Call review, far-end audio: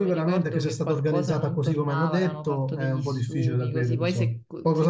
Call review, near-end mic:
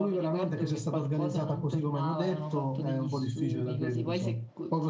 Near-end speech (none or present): none